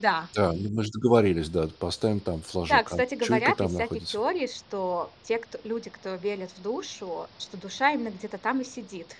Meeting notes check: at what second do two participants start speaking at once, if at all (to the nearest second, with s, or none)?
3 s